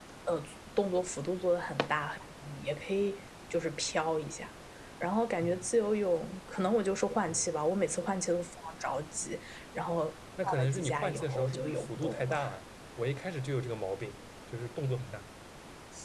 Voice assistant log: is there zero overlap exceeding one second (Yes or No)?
No